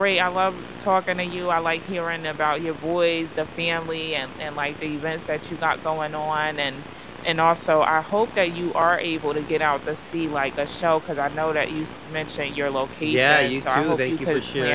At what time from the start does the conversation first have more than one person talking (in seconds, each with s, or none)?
13.0 s